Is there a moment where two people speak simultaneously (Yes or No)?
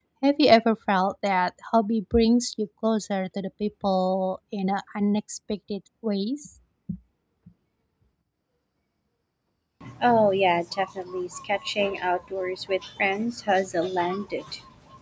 No